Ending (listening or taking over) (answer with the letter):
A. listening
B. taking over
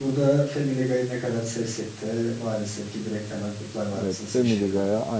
B